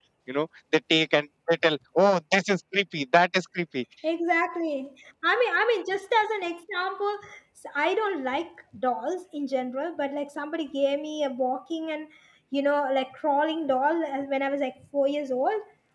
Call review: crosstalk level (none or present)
none